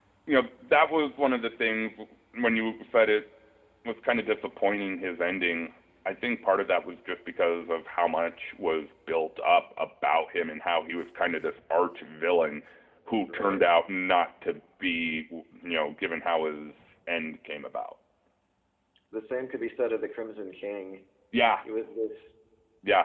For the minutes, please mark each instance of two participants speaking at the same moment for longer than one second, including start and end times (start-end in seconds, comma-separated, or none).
none